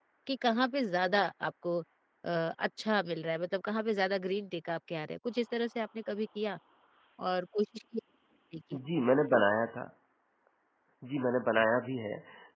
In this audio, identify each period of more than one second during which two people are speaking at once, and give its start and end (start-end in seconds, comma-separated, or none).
none